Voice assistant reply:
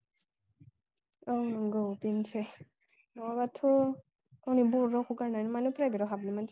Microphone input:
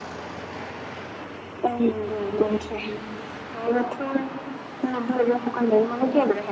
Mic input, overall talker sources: echo only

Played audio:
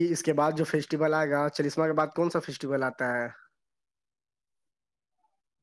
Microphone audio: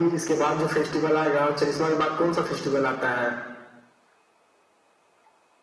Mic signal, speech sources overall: echo only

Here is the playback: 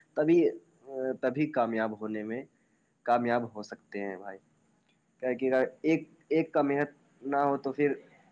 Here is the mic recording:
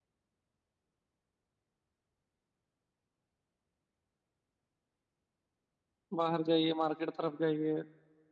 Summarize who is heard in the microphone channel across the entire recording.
user only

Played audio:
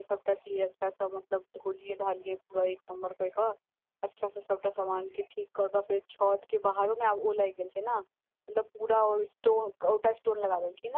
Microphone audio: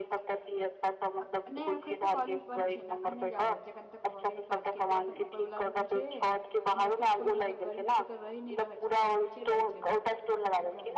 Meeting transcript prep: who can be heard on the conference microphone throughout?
both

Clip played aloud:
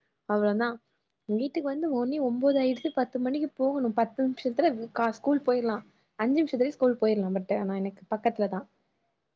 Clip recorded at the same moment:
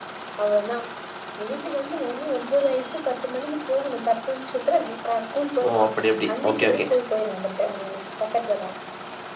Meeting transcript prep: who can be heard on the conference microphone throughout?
both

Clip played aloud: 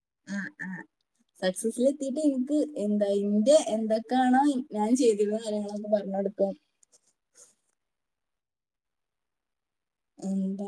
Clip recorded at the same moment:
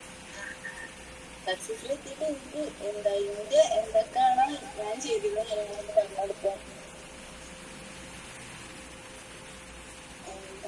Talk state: echo only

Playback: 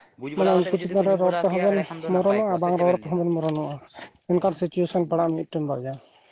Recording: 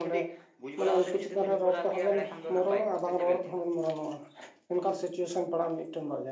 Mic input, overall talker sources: echo only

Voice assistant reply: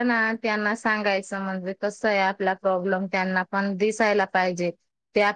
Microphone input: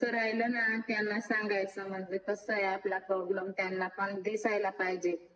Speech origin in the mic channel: echo only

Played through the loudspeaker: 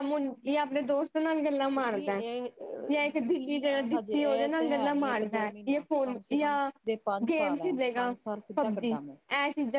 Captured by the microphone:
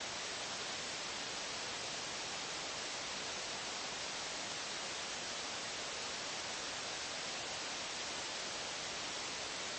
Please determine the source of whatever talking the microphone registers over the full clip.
neither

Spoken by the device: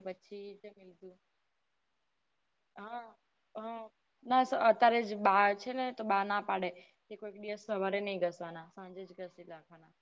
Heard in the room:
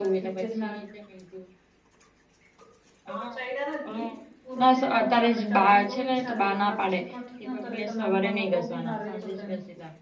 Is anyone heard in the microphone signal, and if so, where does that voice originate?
both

